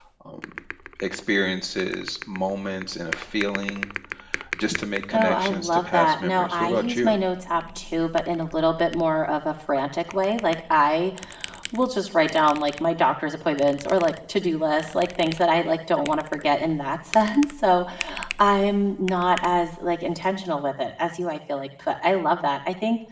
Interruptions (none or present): present